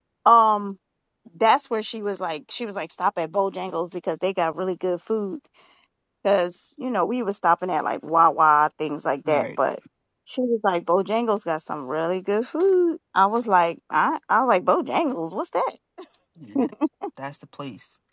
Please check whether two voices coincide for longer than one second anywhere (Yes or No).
No